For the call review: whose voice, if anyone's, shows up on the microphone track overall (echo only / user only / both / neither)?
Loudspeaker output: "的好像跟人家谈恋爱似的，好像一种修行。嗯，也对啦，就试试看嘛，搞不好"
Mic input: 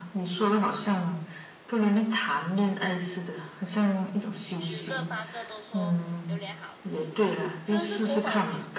both